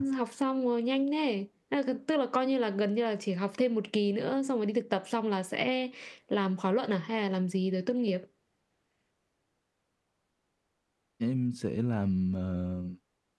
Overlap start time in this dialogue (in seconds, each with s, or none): none